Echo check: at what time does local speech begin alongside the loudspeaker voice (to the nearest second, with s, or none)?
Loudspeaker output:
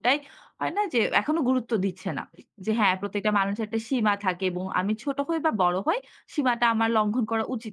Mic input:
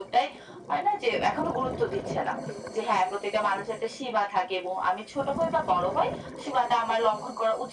none